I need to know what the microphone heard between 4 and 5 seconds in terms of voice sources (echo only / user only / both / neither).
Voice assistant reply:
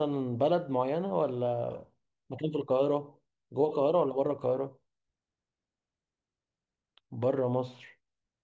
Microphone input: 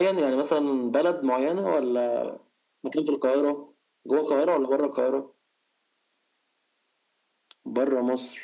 echo only